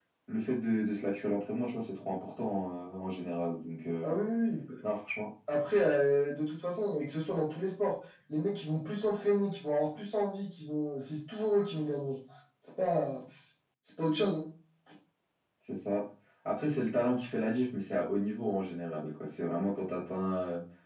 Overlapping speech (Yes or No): No